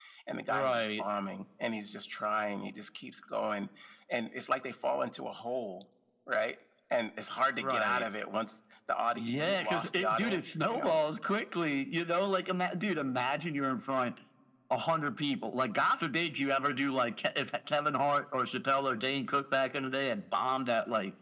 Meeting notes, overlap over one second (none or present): present